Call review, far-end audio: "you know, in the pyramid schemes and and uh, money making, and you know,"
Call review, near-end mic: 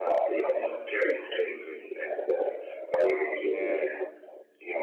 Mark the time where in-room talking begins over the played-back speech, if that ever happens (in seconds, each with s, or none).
3.4 s